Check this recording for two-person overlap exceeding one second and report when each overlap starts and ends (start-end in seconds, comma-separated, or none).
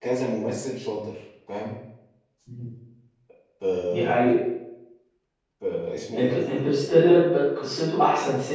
none